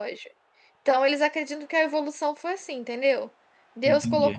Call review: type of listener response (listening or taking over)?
listening